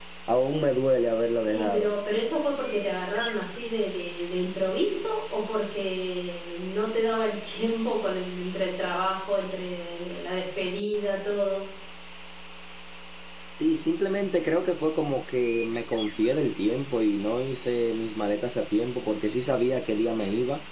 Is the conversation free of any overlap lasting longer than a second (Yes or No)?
Yes